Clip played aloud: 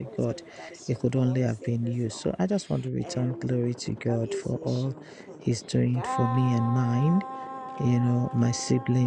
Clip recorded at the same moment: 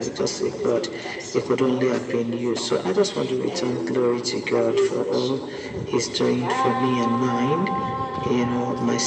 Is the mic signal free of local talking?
Yes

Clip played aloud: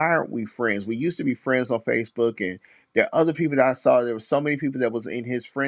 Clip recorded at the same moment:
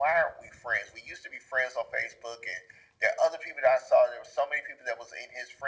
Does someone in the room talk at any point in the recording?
No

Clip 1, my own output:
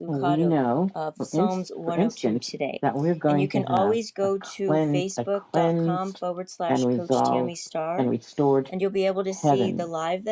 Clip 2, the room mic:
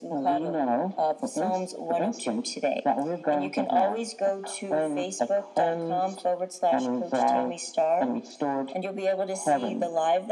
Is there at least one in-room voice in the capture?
No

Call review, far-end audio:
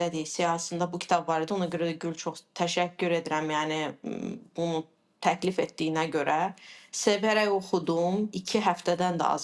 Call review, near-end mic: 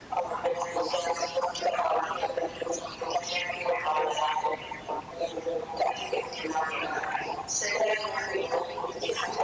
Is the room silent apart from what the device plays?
Yes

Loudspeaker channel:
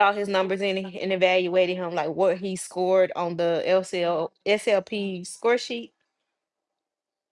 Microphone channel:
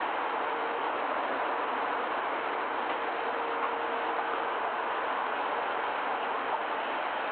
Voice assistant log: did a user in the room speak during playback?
No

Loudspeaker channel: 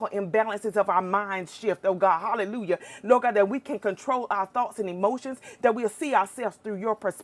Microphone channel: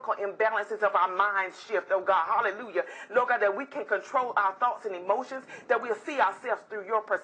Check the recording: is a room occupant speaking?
No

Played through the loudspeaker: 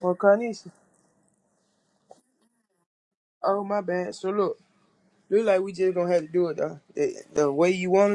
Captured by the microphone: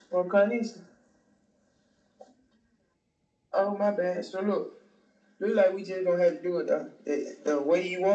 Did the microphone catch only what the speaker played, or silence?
Yes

